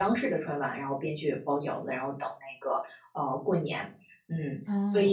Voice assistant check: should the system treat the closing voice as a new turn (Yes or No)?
Yes